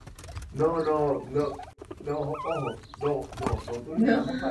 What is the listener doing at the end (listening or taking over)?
listening